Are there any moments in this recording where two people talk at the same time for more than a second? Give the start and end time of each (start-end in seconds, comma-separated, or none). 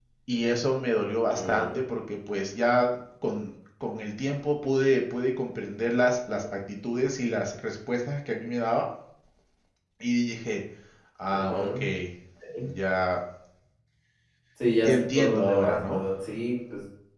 14.8-16.0